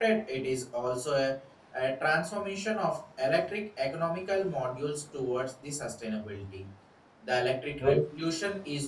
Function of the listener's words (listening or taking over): listening